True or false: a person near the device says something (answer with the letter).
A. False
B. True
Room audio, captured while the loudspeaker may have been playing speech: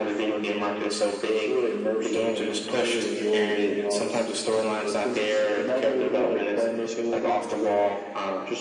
A